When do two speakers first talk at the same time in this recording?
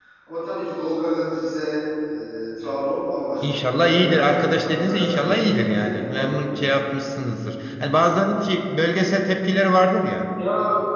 3 s

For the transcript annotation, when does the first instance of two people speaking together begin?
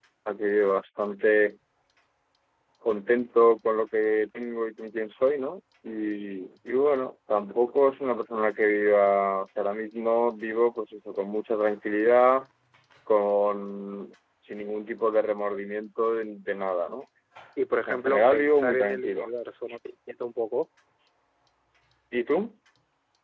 18 s

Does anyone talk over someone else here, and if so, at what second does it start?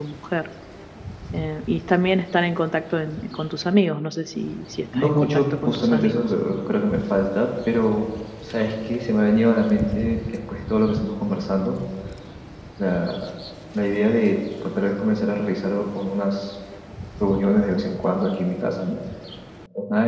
5 s

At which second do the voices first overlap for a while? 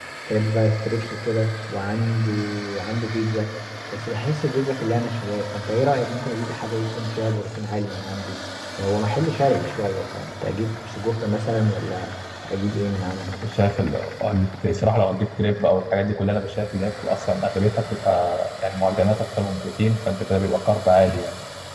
none

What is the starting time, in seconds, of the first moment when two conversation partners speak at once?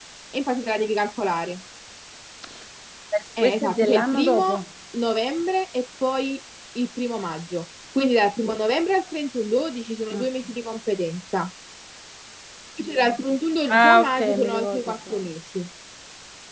3 s

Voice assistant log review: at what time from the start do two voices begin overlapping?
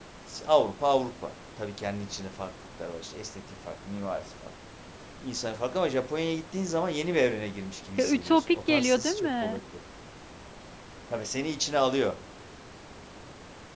8 s

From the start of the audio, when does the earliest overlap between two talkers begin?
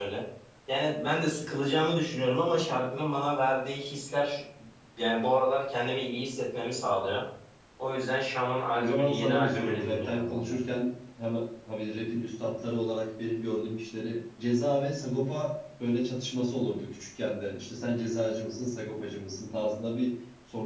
9 s

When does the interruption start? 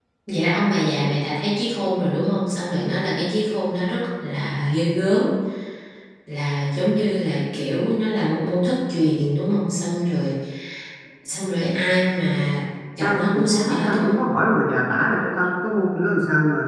13 s

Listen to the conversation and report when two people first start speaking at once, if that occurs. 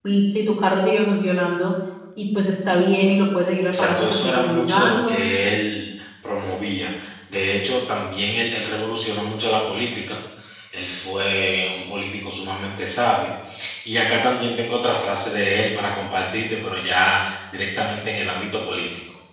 4 s

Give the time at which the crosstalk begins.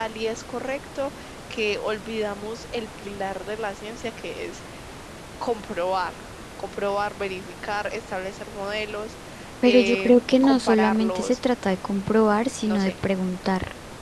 10 s

